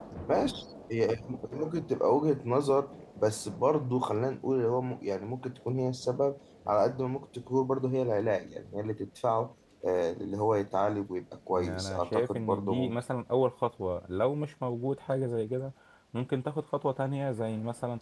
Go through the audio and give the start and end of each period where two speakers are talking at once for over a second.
11.5-12.9

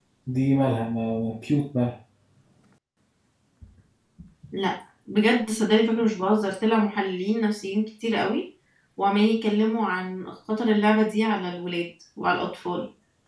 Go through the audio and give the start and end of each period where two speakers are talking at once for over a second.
none

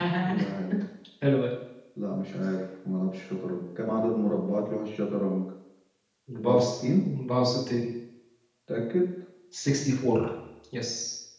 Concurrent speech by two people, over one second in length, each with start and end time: none

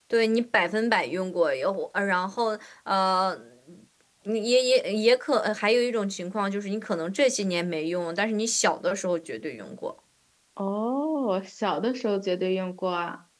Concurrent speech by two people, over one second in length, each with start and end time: none

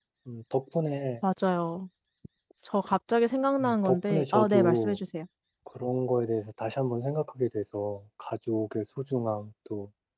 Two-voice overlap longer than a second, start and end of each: 3.6-5.0

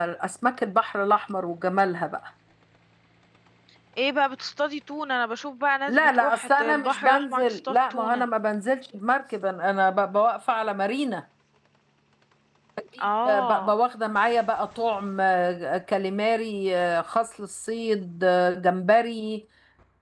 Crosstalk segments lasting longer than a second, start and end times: 5.9-8.2

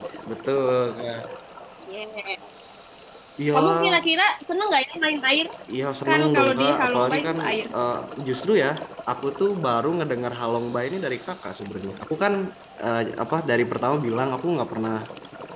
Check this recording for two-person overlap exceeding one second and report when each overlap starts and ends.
6.0-7.4

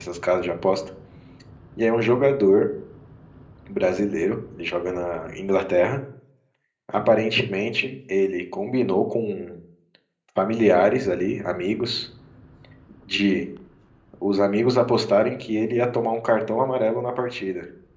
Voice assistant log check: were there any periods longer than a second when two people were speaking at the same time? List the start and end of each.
none

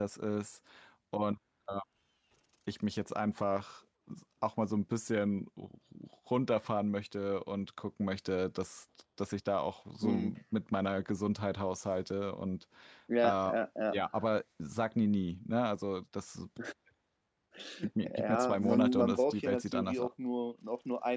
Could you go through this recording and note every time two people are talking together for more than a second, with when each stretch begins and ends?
18.0-20.1

